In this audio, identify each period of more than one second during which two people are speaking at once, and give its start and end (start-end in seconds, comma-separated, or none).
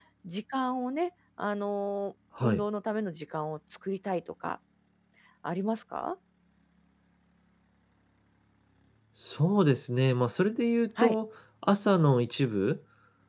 none